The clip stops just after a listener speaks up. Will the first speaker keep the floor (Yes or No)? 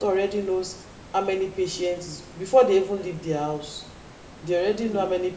Yes